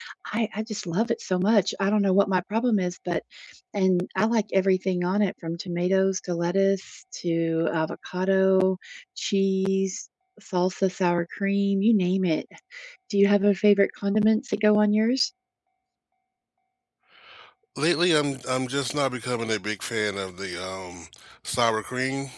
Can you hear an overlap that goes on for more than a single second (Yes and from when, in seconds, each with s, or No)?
No